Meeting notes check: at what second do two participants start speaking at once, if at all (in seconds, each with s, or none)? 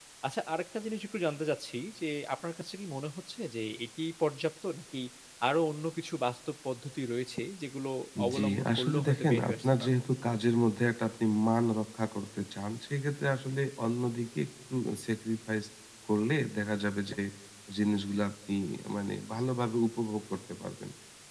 8.3 s